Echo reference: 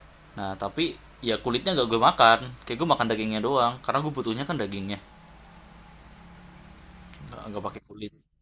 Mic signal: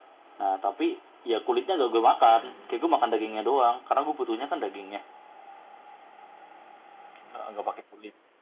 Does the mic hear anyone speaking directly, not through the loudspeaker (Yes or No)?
Yes